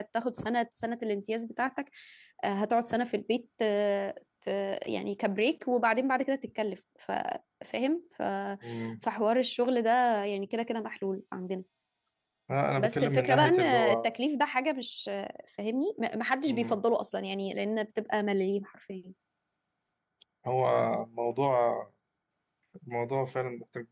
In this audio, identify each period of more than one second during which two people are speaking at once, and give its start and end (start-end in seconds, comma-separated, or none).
12.8-14.2